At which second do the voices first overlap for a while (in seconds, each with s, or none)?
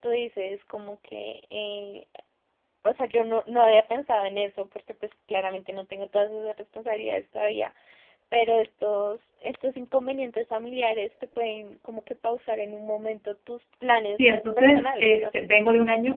14.1 s